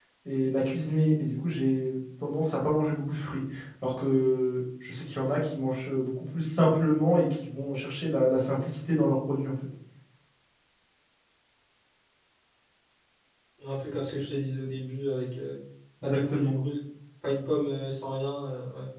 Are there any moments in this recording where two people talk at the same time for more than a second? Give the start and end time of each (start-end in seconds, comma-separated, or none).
none